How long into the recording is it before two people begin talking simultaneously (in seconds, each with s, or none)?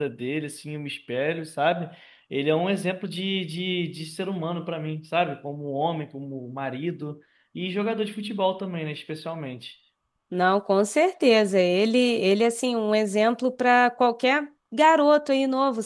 none